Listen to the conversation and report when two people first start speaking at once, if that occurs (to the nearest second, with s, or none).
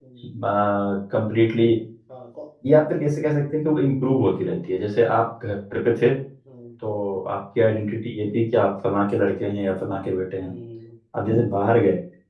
none